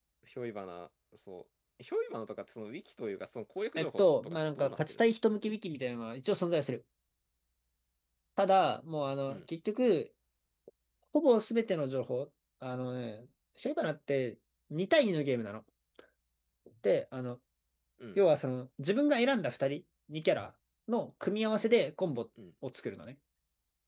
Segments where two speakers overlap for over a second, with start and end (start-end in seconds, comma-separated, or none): 3.8-5.1